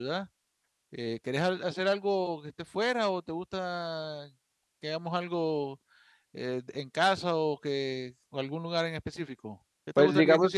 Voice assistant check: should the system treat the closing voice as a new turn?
Yes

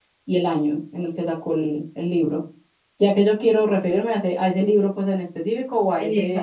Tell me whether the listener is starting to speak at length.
Yes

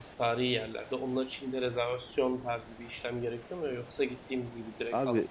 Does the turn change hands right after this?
Yes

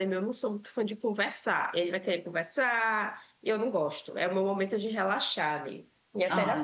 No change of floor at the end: No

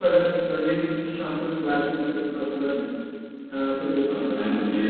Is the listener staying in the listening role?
No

